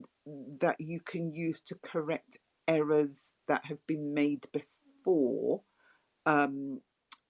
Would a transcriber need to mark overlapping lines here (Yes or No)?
No